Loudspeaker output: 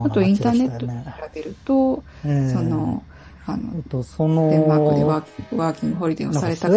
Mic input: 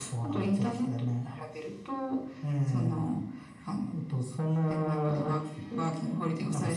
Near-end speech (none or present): none